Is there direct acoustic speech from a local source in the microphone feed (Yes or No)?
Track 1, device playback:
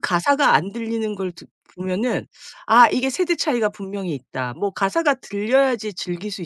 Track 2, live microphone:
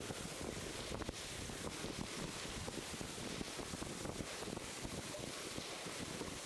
No